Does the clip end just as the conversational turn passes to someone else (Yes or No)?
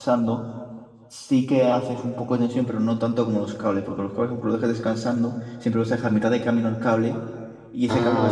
Yes